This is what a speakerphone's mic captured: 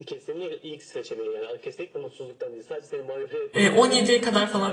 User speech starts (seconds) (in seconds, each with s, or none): 3.5 s